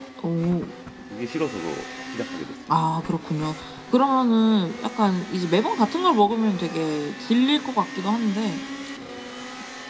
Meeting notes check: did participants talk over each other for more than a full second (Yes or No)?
No